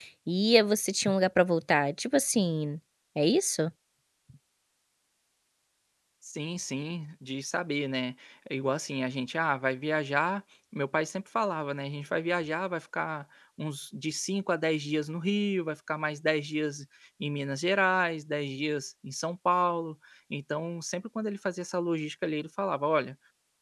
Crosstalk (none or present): none